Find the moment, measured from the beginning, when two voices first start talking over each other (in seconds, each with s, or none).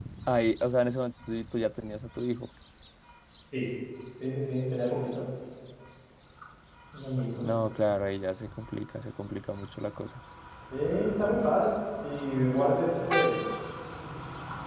none